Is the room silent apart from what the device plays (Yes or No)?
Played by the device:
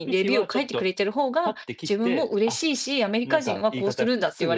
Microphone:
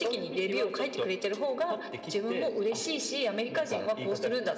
Yes